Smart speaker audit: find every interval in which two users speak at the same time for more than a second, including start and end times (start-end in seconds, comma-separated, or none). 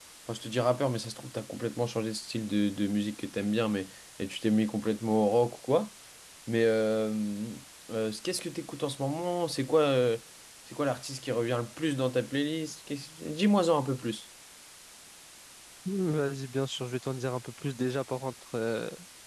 none